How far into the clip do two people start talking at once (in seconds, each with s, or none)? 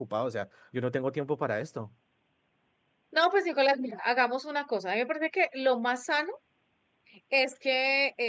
none